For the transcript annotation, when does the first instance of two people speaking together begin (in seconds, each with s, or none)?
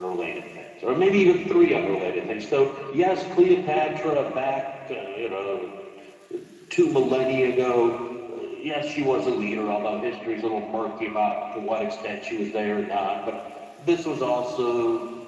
none